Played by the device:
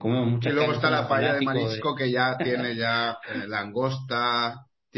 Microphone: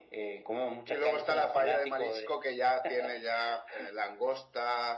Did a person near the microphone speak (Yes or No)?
No